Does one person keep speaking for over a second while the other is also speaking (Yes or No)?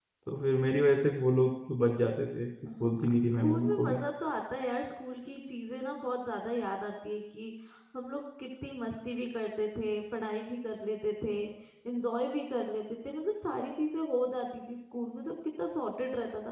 Yes